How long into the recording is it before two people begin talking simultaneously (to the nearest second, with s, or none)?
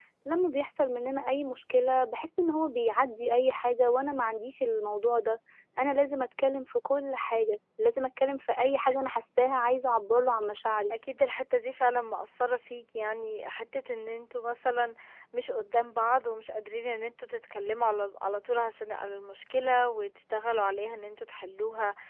none